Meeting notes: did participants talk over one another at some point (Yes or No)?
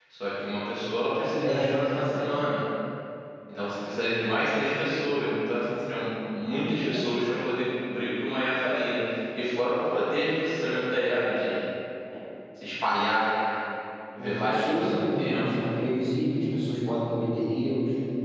Yes